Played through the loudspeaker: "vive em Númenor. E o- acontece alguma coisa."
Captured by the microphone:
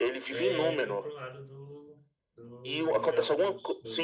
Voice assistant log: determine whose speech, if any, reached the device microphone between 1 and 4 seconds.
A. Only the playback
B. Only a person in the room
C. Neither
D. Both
D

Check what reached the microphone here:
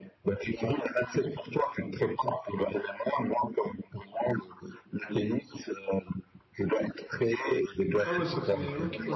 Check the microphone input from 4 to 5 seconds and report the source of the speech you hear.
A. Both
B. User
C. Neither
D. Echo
D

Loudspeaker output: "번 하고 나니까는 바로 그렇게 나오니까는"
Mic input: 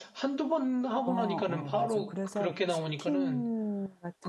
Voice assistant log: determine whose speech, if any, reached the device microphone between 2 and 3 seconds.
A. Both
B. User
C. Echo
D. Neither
A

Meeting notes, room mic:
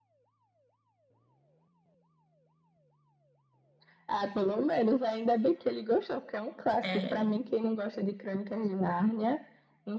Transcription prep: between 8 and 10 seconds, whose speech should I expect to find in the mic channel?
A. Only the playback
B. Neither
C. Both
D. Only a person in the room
A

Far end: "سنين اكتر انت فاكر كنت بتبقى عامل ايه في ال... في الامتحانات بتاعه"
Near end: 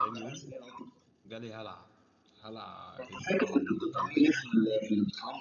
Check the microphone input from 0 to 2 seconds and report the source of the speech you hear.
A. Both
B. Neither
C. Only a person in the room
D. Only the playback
A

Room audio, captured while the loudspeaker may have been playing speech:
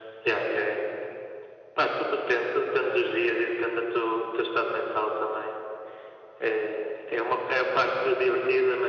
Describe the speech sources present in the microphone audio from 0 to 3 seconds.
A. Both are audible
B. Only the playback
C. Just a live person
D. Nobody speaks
B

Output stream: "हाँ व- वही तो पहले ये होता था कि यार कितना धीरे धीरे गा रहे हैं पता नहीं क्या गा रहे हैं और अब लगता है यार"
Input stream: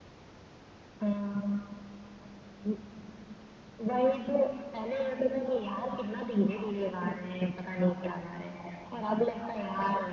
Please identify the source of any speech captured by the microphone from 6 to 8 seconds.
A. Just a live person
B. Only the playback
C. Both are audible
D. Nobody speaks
B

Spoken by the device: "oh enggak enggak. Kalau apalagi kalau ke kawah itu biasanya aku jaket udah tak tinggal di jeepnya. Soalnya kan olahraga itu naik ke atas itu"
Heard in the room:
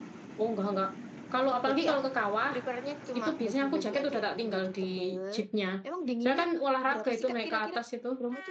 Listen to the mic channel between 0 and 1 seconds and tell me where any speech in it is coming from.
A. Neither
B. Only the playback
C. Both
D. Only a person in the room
B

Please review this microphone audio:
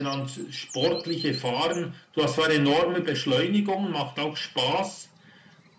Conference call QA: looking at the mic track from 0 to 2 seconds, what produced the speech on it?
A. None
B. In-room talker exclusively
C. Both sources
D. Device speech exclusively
D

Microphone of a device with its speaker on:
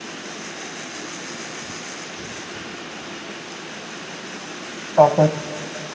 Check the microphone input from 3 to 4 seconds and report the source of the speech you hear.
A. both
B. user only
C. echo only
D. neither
D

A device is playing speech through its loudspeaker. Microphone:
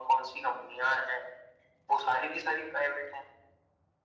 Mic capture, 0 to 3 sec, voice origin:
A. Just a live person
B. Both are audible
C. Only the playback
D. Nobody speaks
C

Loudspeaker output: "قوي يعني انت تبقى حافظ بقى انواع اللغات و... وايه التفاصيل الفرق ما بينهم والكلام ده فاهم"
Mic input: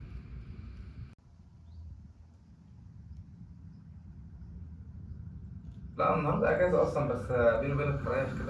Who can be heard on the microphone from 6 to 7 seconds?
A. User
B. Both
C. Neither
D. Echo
A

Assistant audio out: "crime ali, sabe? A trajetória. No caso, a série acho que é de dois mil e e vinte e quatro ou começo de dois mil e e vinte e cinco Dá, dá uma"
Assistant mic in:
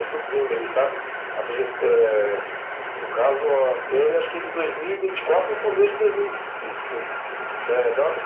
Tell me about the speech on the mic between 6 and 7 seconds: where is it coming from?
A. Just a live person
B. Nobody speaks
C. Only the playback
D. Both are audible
C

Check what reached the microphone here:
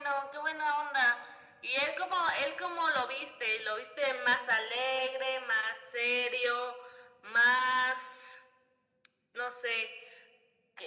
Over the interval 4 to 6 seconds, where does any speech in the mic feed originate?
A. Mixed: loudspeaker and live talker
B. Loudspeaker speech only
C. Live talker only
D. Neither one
B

